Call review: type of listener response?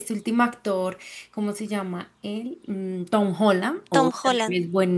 listening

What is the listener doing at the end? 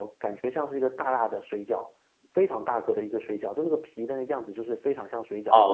taking over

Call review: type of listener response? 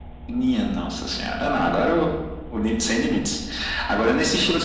listening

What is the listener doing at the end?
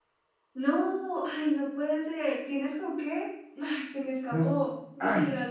taking over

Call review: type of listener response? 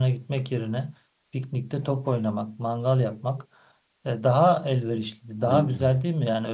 listening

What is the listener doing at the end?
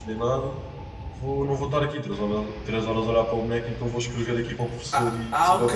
taking over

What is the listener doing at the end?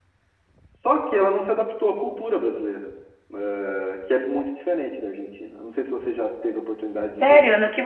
taking over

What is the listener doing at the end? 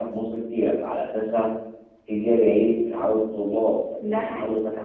listening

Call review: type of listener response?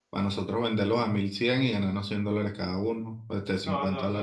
taking over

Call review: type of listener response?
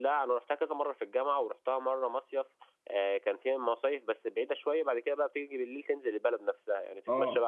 listening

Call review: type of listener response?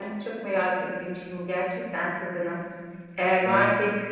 listening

